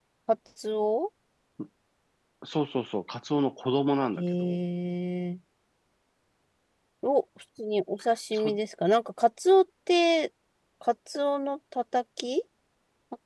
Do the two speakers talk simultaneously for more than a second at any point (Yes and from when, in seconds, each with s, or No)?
No